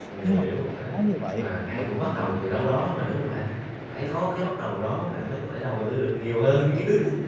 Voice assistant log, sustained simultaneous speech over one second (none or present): present